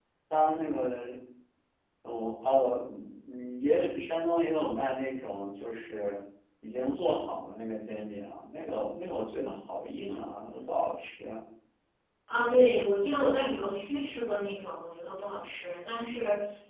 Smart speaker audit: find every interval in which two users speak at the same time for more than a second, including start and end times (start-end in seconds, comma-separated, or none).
none